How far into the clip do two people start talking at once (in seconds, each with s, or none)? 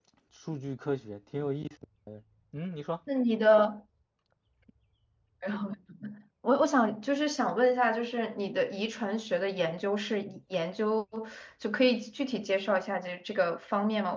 none